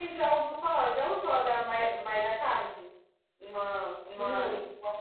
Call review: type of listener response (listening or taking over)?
listening